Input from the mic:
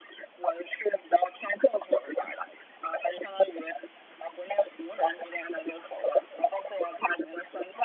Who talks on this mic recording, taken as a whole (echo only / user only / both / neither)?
echo only